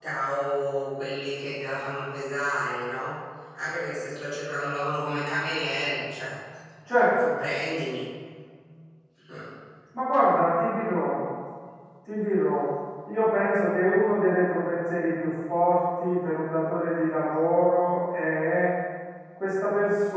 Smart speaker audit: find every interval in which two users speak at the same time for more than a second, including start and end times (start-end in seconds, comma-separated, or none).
none